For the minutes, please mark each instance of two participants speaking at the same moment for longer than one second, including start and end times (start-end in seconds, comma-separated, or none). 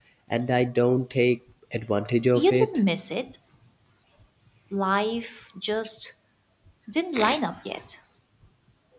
none